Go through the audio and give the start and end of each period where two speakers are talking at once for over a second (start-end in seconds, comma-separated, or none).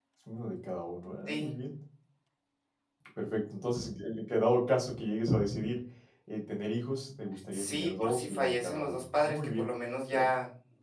7.5-9.7